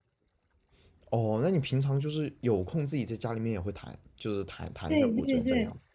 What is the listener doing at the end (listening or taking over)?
taking over